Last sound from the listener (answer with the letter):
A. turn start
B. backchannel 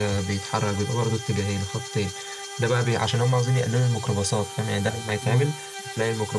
B